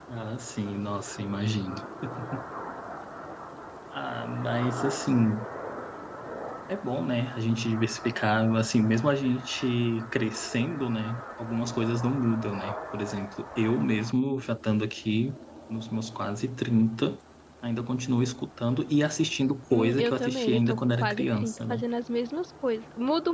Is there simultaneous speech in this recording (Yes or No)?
Yes